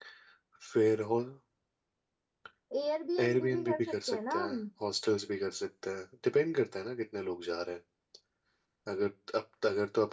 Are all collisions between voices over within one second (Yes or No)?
No